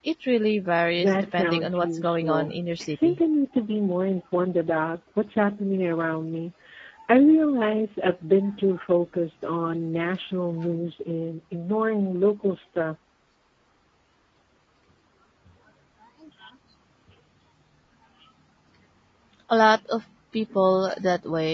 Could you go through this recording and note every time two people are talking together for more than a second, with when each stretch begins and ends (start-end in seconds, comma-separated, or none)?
1.0-3.2